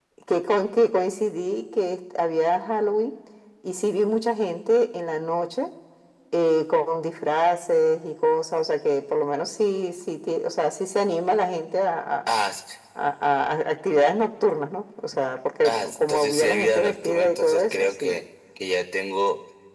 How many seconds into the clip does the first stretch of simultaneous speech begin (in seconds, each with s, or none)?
15.6 s